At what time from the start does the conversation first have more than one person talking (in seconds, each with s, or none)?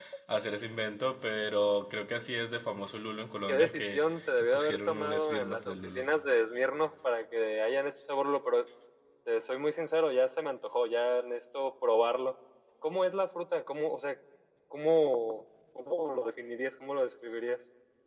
3.5 s